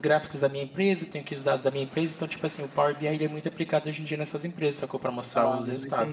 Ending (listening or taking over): taking over